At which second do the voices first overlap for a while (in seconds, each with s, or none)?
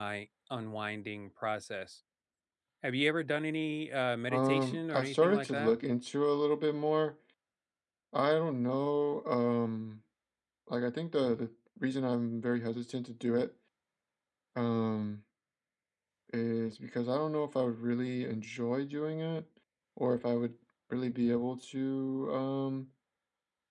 4.3 s